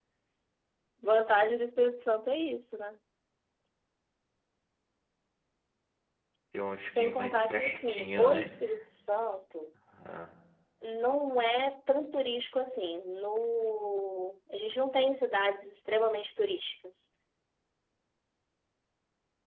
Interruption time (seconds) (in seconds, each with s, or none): 7.0 s